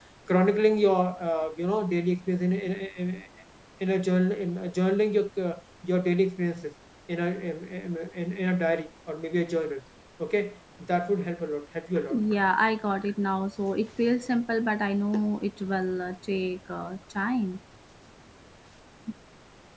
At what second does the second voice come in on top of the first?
none

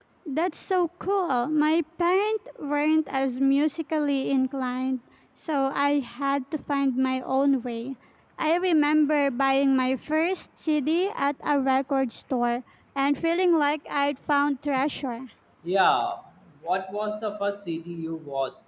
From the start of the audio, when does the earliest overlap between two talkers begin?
none

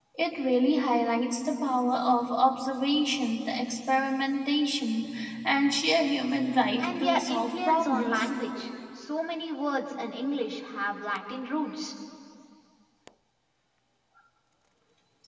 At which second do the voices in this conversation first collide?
6.8 s

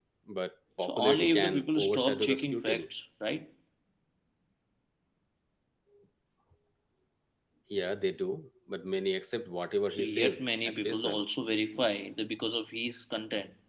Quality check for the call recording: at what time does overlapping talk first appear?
0.8 s

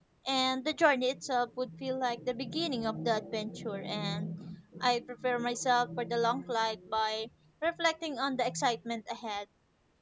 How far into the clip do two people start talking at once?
none

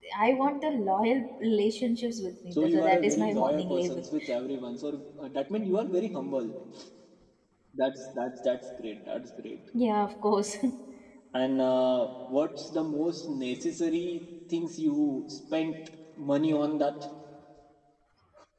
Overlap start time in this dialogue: 2.5 s

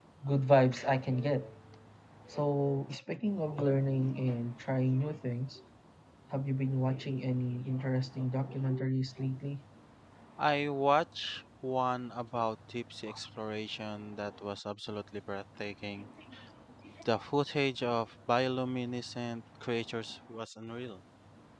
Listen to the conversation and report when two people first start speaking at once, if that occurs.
none

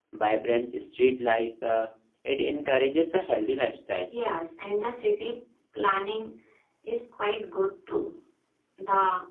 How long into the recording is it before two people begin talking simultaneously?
none

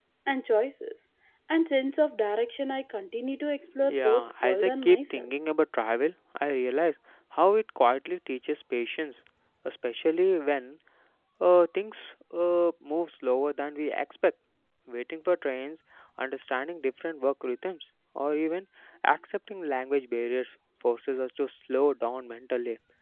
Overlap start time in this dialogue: 3.6 s

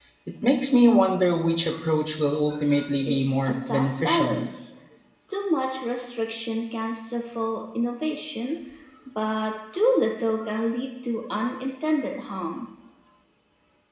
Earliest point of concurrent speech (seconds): 3.0 s

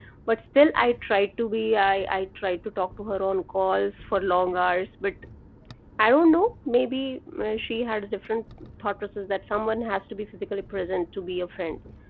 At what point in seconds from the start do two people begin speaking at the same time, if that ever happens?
none

